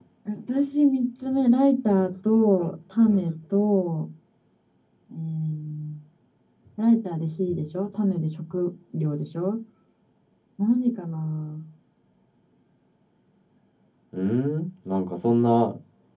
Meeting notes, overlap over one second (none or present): none